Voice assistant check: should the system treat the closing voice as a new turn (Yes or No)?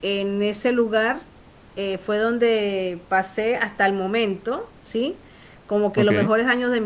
No